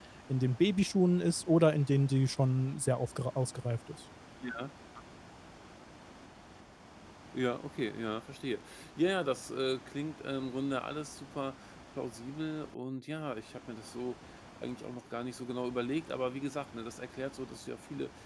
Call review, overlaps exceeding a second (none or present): none